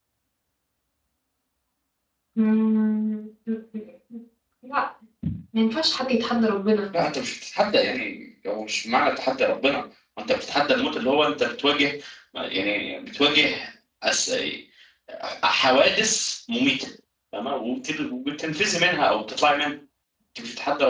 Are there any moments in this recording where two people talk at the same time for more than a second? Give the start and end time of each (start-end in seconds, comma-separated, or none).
none